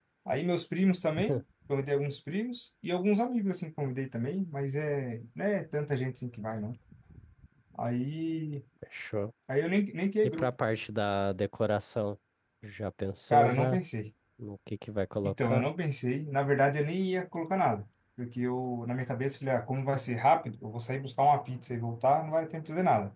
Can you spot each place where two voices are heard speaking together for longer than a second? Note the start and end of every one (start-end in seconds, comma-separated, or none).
none